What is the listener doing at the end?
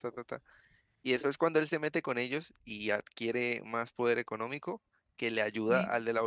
listening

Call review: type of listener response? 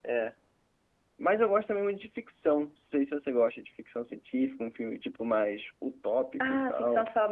taking over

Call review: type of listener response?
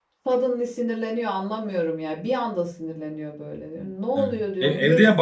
taking over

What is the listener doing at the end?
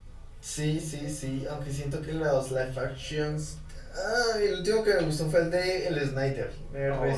taking over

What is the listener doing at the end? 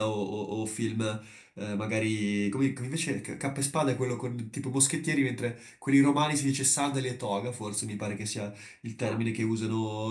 listening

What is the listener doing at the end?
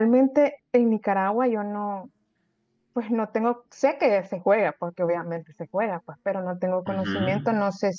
listening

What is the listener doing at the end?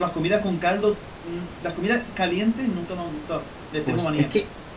taking over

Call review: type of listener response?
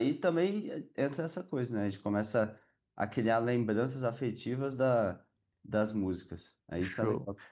taking over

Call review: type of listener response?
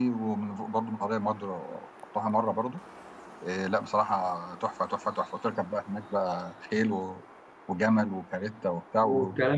taking over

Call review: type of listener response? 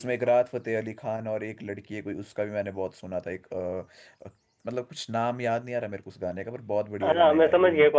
taking over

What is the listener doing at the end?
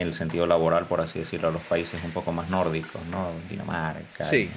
listening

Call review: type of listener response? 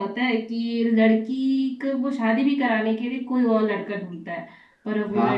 listening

